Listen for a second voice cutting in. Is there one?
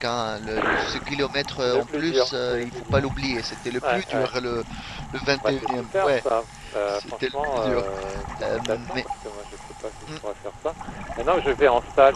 Yes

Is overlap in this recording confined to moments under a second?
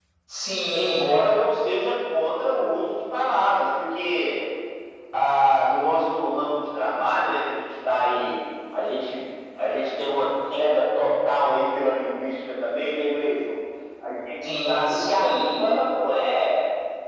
No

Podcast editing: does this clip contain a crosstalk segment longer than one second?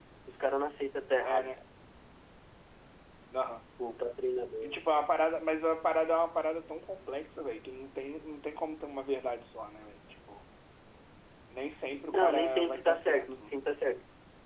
Yes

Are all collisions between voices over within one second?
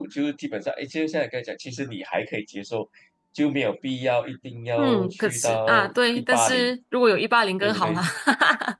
No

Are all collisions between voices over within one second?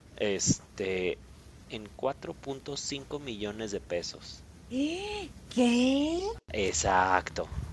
Yes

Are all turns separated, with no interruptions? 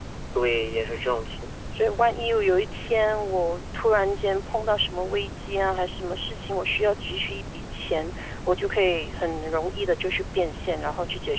Yes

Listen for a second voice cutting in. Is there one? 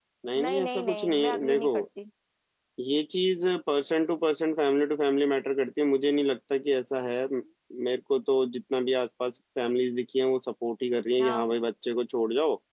Yes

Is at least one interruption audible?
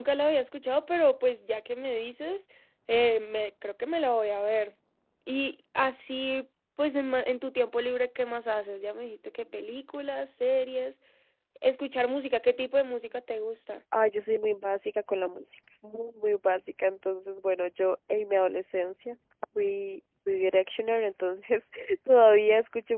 No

